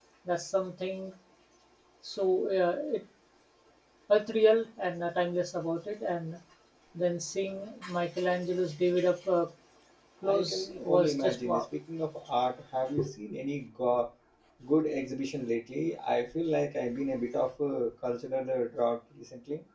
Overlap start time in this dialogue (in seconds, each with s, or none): 10.2 s